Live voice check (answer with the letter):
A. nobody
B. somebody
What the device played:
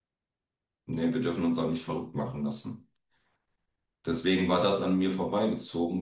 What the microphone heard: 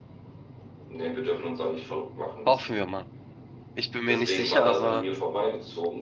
B